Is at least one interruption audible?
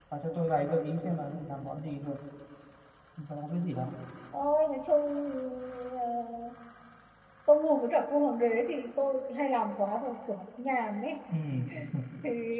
No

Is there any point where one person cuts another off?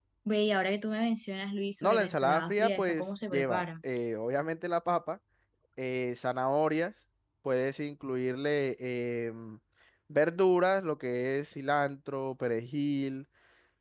Yes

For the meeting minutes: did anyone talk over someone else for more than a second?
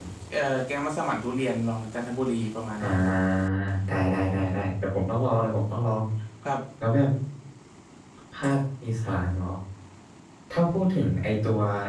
No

